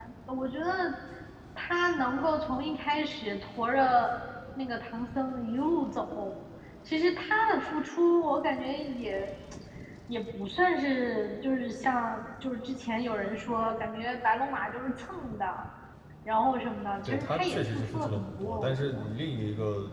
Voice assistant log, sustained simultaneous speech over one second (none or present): present